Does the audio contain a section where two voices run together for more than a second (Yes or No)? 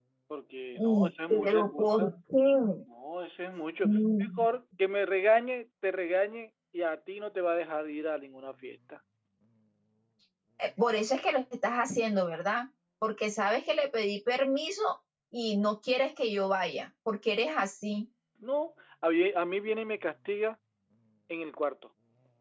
Yes